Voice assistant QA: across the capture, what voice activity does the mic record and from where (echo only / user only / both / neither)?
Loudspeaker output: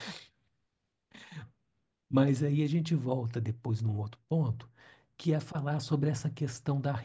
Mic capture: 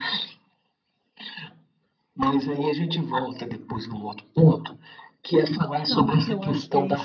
both